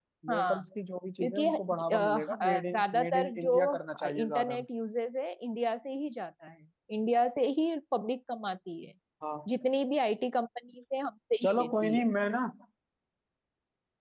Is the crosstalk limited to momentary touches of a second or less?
No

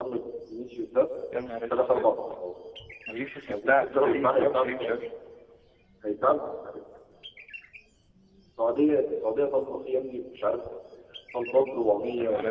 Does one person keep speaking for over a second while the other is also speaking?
Yes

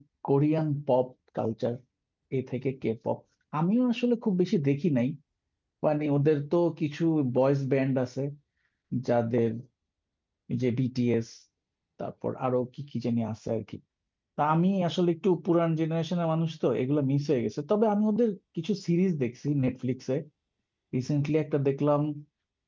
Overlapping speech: No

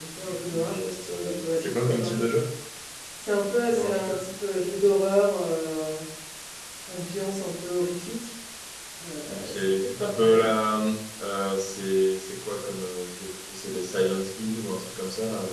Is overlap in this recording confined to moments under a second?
No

